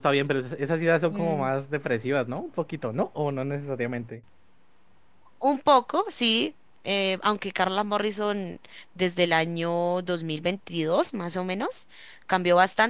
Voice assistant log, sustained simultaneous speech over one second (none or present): none